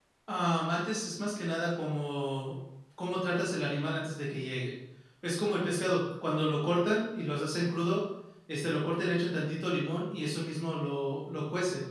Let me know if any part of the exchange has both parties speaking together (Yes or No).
No